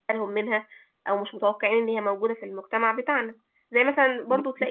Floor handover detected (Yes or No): No